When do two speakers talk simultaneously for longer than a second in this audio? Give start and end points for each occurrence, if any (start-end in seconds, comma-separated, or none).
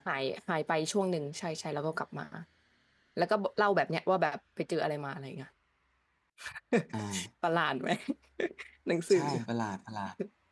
none